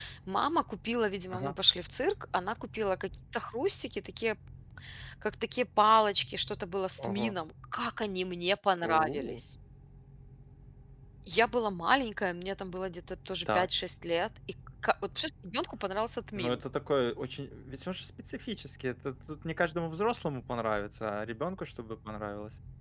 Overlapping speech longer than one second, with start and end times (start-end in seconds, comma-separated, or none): none